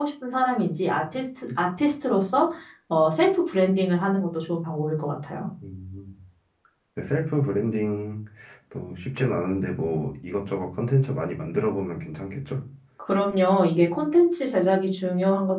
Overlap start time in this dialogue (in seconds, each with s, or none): none